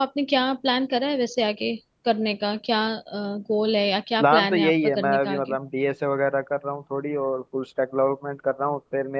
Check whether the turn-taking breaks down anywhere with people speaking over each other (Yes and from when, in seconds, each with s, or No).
Yes, from 4.2 s